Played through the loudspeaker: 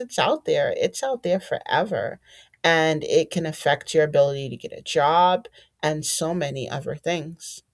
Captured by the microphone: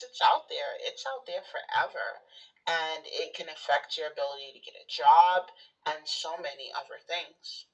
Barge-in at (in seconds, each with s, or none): none